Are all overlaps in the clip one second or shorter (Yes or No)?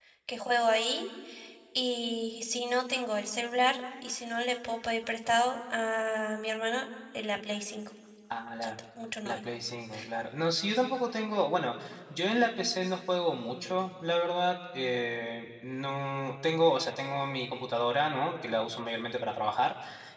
Yes